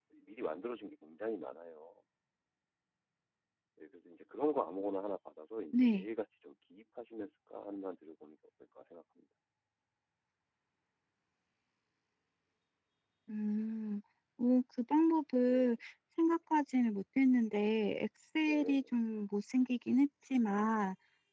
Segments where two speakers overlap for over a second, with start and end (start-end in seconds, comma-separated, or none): none